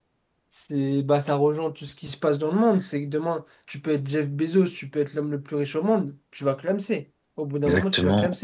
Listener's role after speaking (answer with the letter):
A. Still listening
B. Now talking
B